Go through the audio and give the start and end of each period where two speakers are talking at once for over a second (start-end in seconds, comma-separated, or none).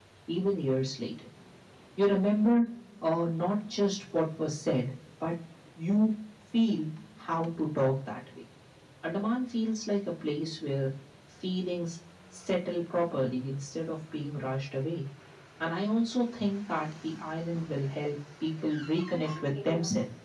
none